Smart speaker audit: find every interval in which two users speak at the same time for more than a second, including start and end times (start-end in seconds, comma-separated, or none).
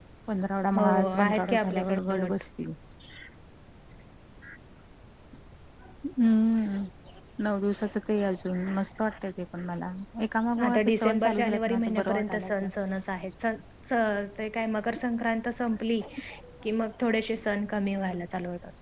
0.8-2.3, 10.7-12.7